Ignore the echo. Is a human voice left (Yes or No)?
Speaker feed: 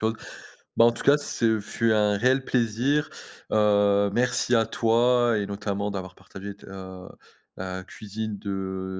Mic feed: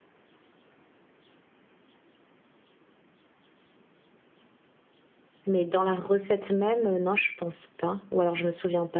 Yes